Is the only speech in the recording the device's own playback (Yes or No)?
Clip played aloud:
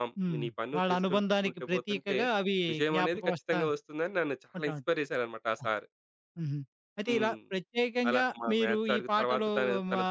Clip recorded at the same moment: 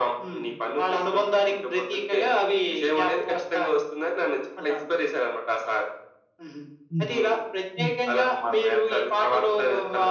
No